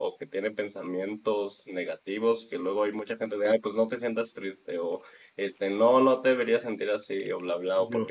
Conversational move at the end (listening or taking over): listening